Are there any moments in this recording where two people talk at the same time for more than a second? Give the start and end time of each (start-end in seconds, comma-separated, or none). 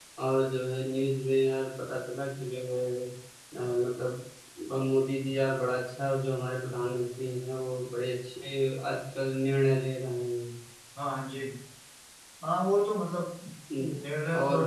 none